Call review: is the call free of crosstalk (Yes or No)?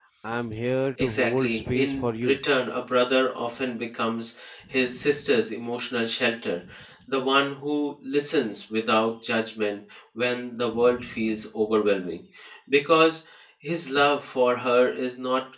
No